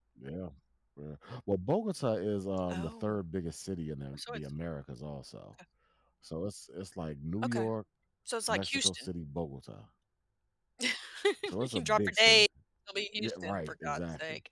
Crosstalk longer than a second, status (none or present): present